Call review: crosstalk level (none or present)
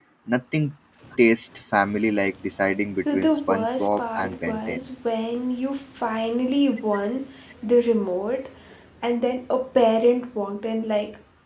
present